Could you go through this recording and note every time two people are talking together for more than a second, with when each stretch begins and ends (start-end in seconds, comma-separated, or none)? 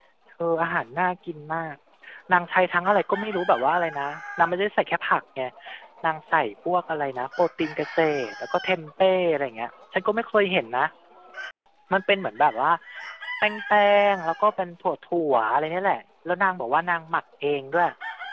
none